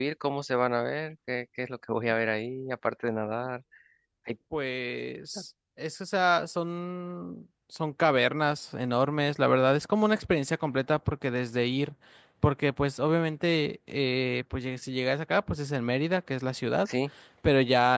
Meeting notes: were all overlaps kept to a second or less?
Yes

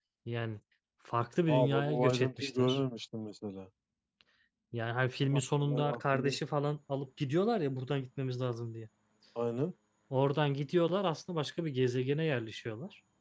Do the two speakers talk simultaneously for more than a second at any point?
Yes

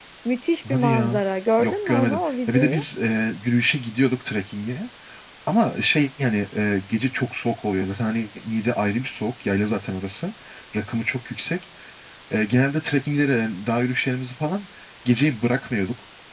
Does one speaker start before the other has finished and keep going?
Yes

